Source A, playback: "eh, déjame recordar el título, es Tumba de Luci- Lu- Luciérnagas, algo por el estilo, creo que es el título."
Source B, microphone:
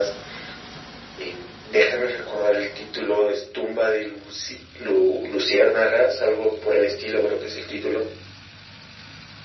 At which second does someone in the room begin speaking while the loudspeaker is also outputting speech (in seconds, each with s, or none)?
none